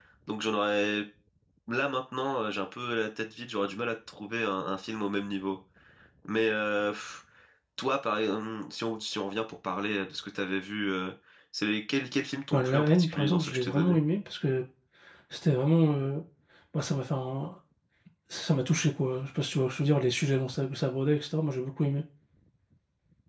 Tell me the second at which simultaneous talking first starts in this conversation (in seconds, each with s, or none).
12.5 s